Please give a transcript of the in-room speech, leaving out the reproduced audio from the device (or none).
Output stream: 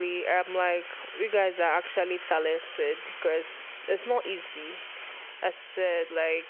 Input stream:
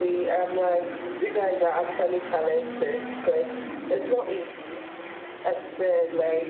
none